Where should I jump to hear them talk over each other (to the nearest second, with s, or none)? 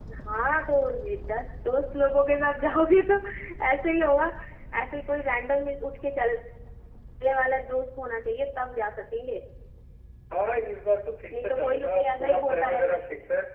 11 s